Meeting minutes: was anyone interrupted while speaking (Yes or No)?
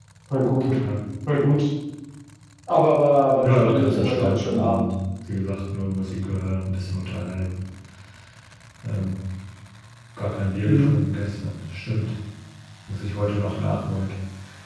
Yes